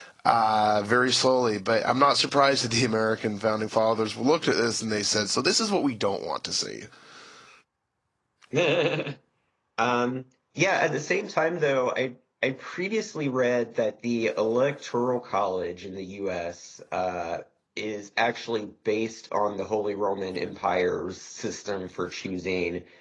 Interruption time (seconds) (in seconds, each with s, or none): none